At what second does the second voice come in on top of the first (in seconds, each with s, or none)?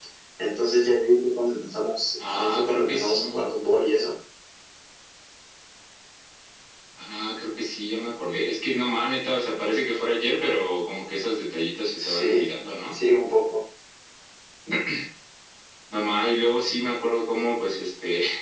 2.2 s